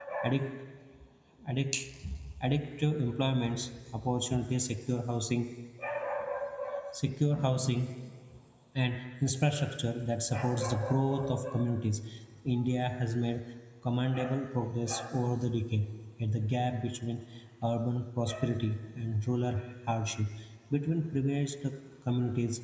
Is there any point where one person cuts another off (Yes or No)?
No